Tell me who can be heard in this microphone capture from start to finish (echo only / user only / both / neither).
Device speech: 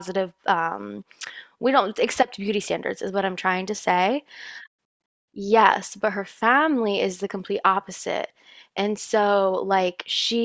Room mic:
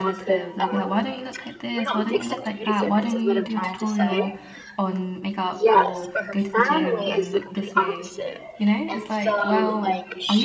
both